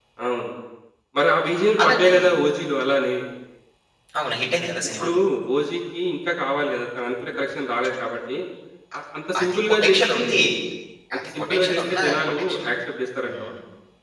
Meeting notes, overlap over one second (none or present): present